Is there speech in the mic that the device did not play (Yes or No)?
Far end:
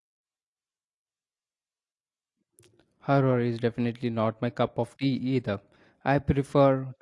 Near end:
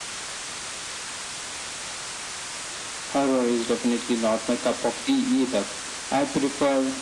No